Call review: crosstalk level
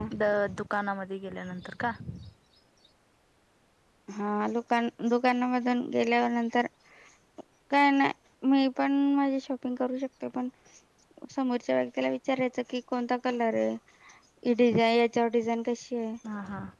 none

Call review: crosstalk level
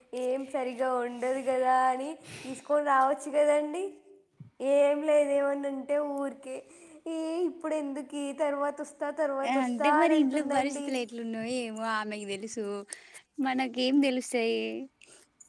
present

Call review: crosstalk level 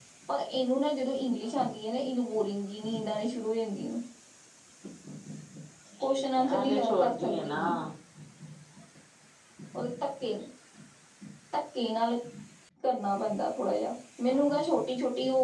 present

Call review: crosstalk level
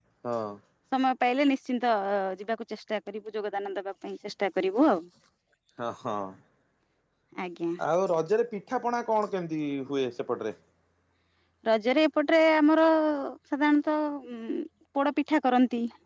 none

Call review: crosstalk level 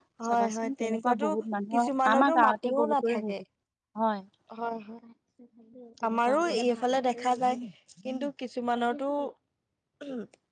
present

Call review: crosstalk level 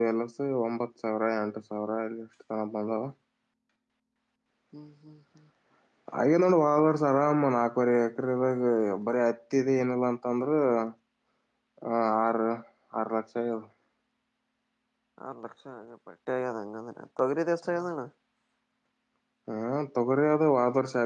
none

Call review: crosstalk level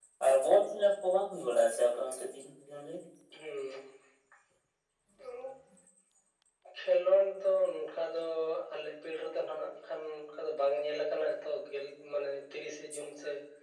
none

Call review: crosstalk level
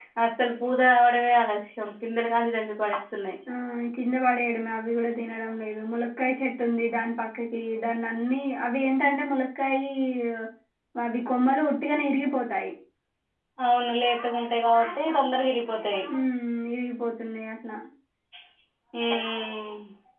none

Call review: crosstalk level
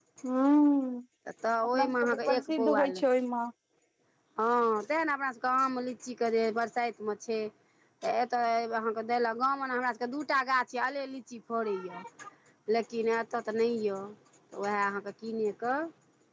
present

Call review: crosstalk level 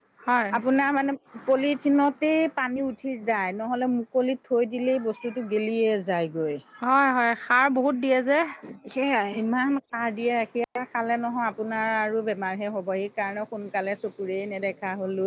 none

